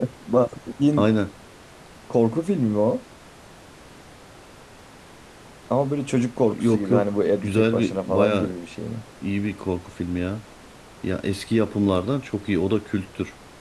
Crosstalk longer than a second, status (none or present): present